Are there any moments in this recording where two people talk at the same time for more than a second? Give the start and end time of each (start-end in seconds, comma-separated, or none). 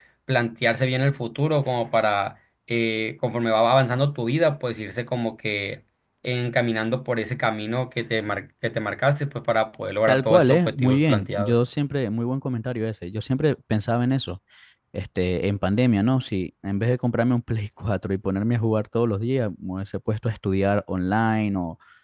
10.1-11.6